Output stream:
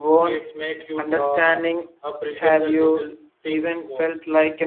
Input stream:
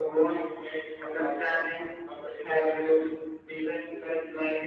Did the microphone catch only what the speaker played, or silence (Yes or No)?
Yes